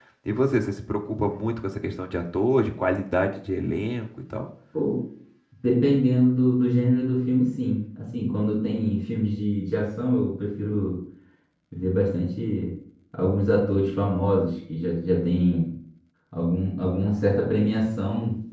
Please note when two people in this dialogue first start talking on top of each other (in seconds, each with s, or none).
none